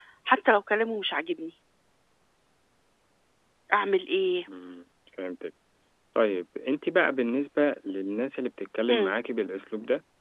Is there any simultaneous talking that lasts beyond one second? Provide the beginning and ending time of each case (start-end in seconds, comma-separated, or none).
none